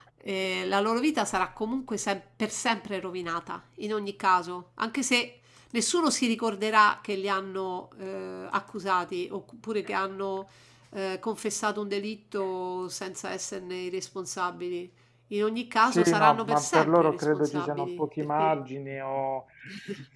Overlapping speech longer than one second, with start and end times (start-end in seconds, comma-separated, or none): 15.9-18.6